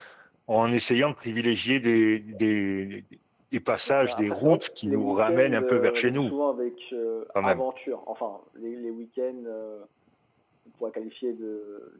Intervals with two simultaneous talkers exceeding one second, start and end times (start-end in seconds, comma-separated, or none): 3.9-6.3